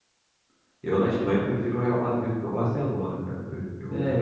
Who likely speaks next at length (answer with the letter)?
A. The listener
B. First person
A